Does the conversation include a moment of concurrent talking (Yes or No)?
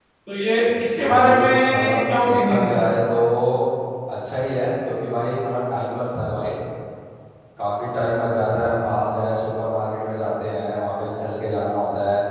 Yes